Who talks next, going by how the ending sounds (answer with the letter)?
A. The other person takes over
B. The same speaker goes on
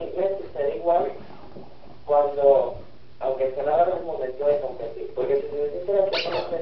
B